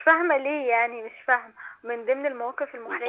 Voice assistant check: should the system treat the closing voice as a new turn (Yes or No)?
No